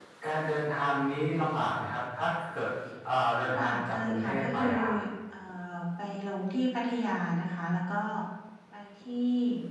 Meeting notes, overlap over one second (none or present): present